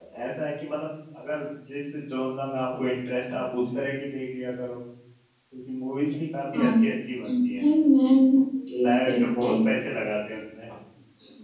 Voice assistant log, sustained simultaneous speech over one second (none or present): none